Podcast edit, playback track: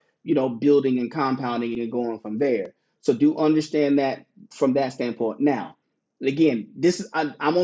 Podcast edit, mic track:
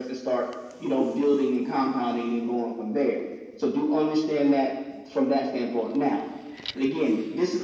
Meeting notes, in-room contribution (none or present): none